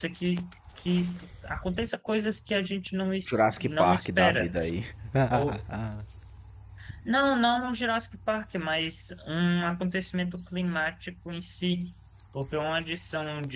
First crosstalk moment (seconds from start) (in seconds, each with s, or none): 3.2 s